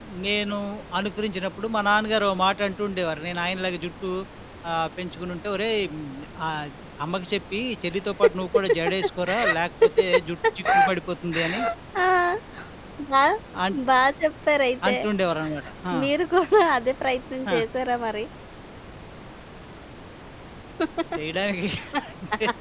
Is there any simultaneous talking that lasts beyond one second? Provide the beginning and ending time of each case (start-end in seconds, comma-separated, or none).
none